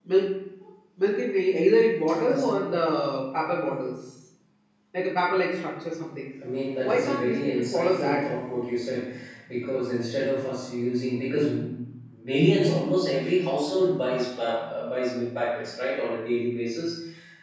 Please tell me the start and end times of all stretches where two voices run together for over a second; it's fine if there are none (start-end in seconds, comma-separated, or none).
6.8-8.2